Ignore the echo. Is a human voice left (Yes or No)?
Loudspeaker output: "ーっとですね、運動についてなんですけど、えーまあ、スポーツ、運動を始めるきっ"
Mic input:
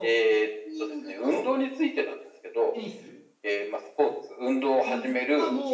Yes